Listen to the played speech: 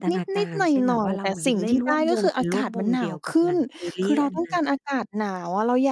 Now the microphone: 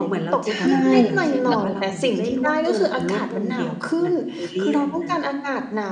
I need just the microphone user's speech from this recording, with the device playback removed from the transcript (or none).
ใช่ แล้ว